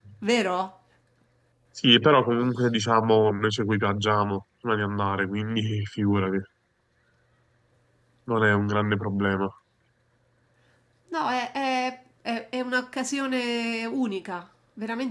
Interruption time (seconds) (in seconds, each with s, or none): none